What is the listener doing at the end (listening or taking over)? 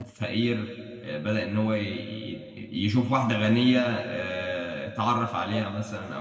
listening